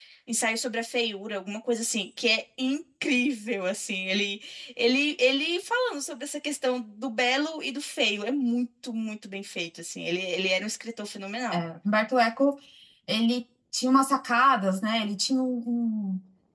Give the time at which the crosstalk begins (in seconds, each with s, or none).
none